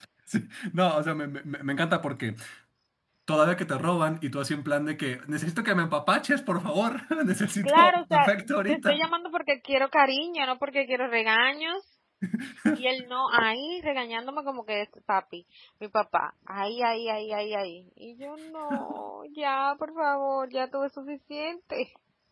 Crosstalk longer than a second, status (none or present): present